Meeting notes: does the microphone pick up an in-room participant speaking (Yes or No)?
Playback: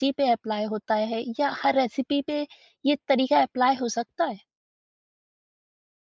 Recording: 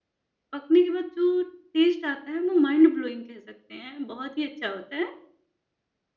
Yes